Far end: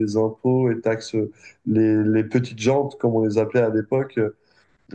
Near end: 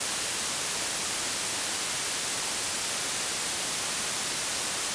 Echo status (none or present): none